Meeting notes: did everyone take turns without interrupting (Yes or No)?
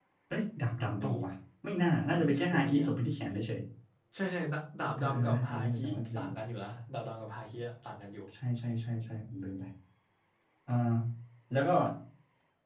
No